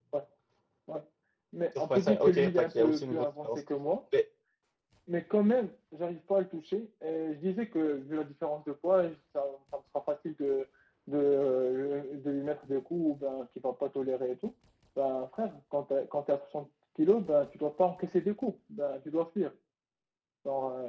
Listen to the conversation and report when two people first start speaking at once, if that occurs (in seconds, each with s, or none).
1.8 s